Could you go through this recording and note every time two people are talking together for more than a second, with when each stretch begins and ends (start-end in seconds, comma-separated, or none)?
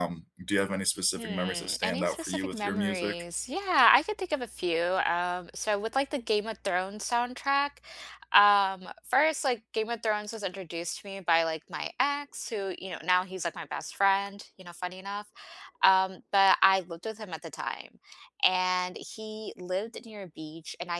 1.2-3.2